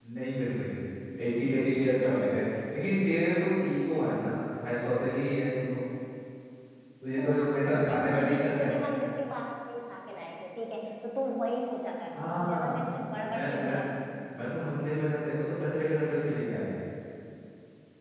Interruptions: present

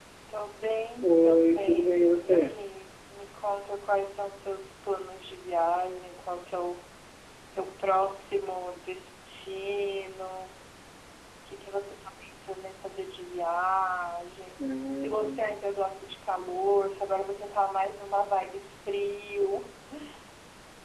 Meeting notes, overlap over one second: present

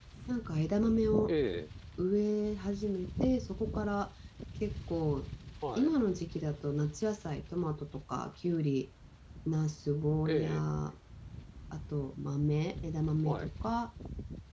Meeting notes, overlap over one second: none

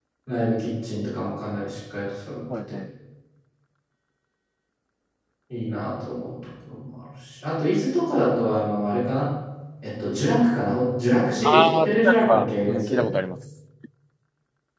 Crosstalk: present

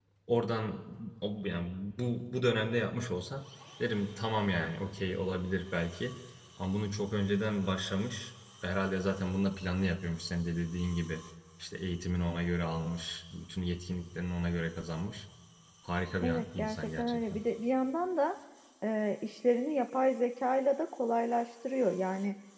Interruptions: present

